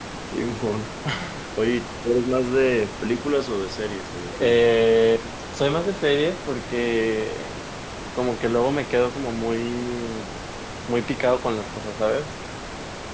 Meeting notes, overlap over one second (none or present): none